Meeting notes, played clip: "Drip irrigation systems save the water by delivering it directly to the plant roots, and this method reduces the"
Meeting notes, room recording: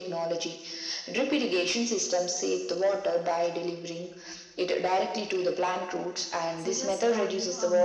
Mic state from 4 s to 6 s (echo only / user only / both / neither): echo only